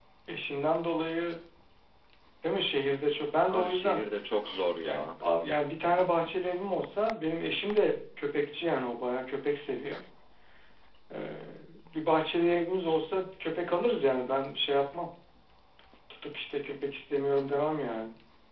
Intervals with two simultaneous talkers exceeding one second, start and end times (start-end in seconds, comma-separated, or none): none